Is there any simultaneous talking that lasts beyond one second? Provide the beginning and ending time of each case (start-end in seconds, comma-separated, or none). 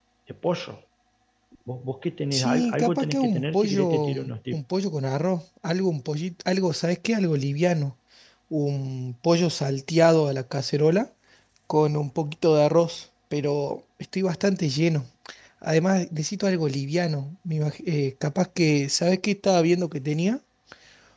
2.3-4.6